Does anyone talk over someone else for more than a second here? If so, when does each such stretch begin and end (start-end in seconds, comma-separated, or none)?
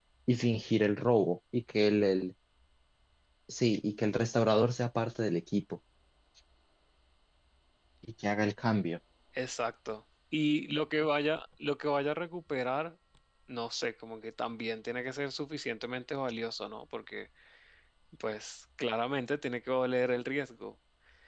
none